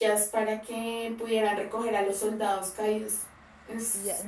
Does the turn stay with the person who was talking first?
No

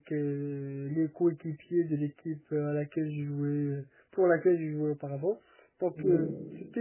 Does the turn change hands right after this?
No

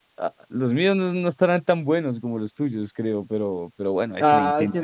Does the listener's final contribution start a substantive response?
Yes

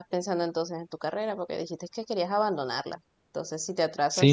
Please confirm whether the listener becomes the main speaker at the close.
Yes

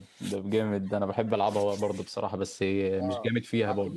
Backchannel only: No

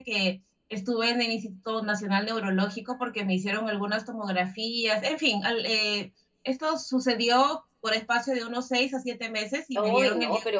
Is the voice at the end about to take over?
Yes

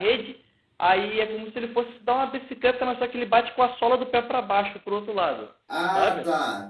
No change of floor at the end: No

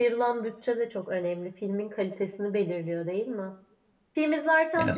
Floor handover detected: No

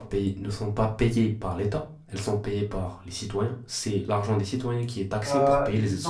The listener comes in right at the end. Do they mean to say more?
Yes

